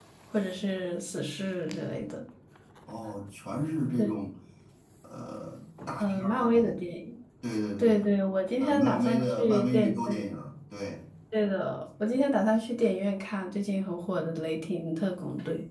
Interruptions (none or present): present